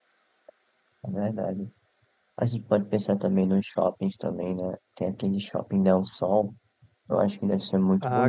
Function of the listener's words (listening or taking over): taking over